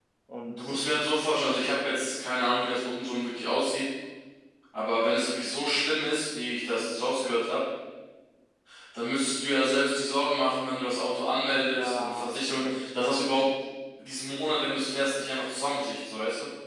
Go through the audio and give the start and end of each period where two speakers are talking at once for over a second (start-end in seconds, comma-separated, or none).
11.5-13.3